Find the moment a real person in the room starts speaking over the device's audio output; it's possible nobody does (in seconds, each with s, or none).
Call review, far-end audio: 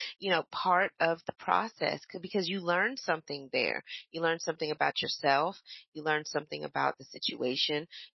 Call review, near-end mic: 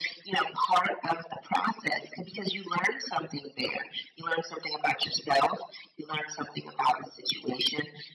none